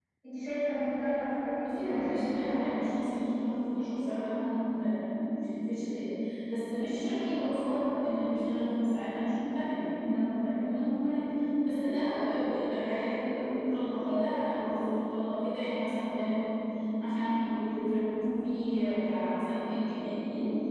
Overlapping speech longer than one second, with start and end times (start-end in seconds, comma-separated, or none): 1.6-2.9